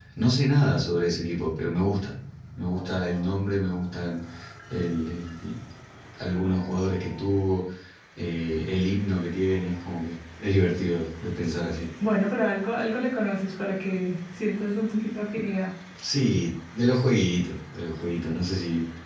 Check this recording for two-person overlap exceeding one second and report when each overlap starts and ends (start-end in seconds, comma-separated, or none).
none